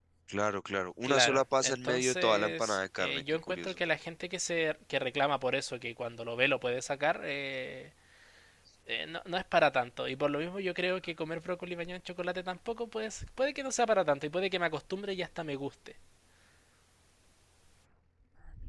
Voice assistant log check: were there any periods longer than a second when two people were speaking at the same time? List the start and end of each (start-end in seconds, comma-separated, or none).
1.0-3.8